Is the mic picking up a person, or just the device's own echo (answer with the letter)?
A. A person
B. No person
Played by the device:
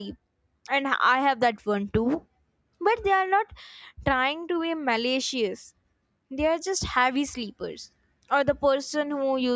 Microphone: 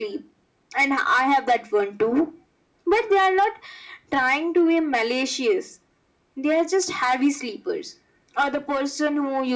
B